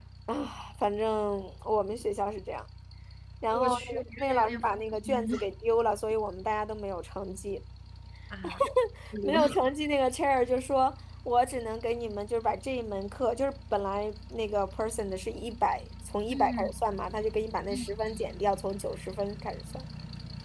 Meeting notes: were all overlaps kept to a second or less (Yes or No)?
No